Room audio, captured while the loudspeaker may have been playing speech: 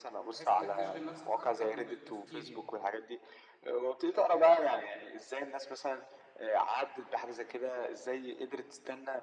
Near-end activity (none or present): present